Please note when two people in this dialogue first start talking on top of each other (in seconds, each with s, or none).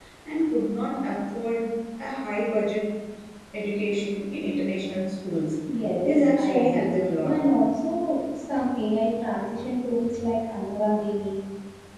6.0 s